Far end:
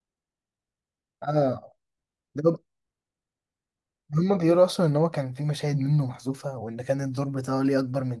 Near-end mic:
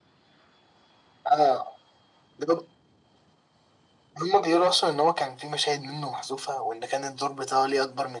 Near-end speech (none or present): none